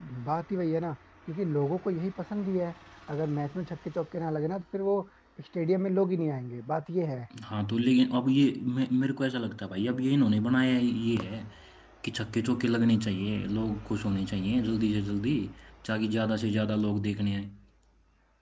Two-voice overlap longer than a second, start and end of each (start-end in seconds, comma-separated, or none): none